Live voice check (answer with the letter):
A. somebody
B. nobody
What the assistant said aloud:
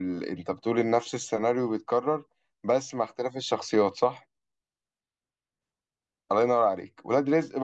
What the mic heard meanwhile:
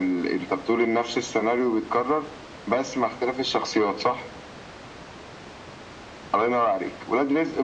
B